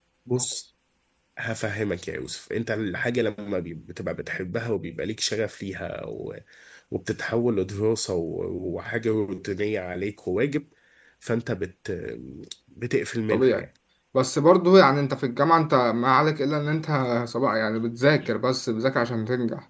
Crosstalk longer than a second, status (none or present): none